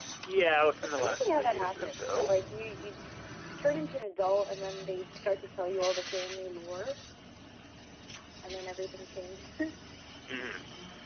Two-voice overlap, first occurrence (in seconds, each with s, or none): 0.8 s